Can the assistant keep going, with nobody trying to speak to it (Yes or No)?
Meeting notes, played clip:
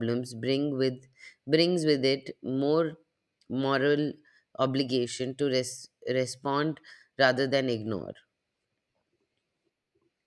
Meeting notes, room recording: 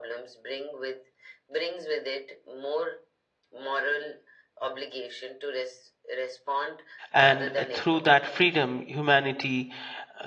No